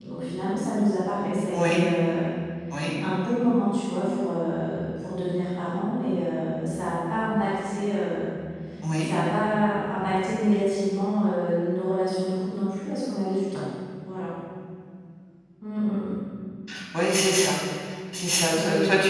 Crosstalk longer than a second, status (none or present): none